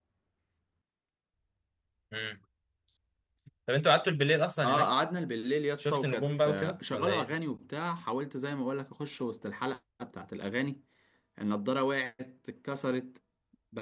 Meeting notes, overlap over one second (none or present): present